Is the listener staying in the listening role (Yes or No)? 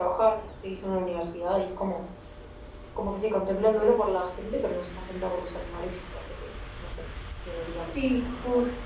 No